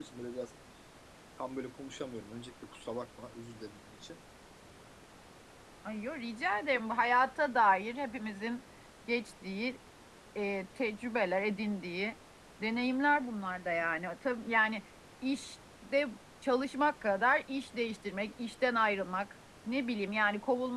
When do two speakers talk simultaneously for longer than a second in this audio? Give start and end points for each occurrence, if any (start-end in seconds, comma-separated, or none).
none